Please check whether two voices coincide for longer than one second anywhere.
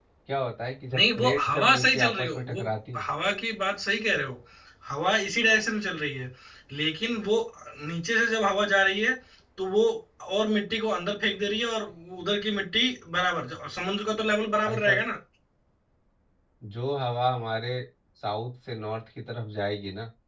Yes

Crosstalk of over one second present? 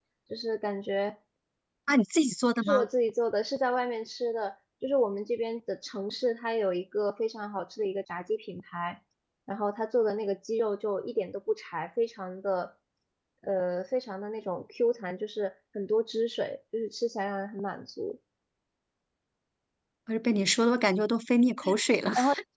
No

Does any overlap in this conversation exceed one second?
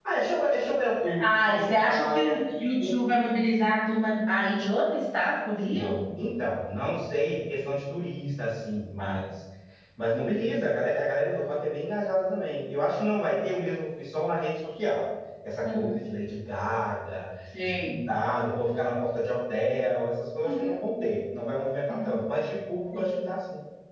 Yes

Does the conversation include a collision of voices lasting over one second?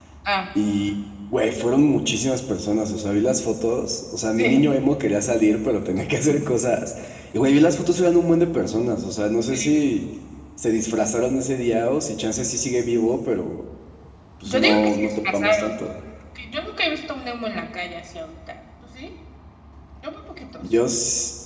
Yes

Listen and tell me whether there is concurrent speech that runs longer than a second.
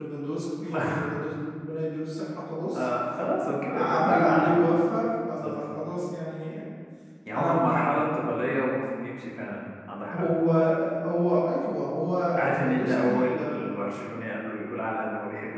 Yes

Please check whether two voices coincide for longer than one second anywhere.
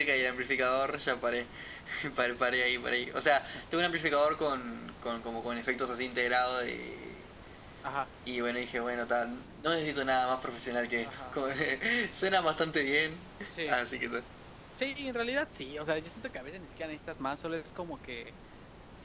No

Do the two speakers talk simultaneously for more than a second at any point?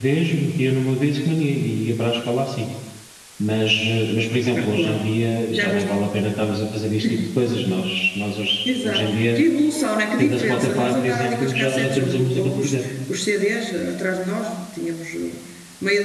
Yes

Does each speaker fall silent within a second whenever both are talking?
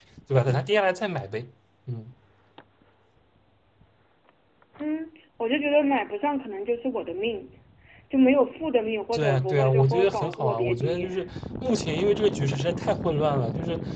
No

